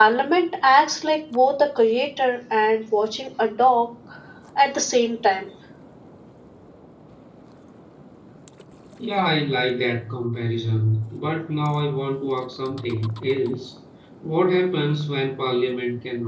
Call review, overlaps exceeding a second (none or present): none